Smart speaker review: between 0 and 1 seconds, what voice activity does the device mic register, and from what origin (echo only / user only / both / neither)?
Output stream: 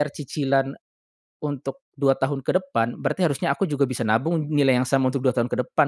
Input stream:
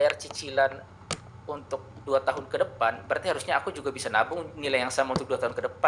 echo only